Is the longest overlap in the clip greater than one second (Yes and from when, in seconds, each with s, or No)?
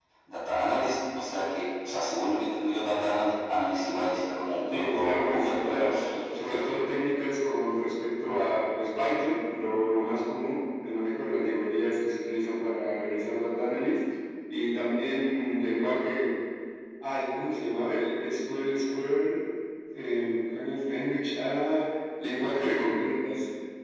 Yes, from 4.7 s